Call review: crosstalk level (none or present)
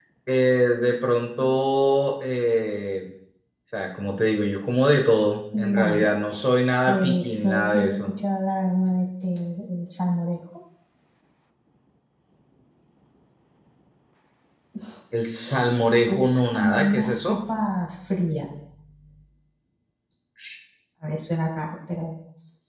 present